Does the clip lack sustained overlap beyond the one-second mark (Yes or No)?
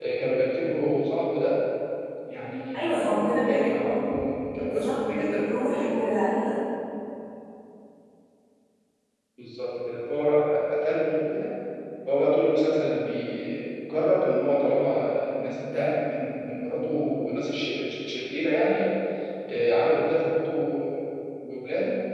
No